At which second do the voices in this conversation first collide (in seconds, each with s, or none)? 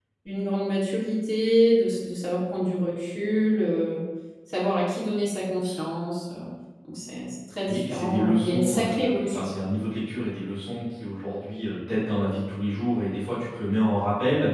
7.7 s